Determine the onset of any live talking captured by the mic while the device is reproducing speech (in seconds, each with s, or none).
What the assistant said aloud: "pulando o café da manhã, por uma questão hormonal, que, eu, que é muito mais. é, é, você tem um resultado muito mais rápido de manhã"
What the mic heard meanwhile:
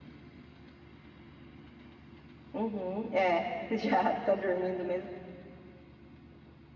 2.5 s